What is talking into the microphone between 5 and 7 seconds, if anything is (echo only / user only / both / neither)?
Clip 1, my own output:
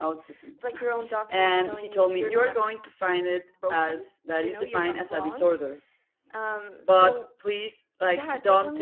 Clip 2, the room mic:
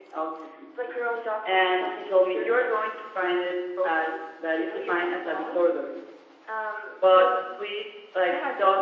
echo only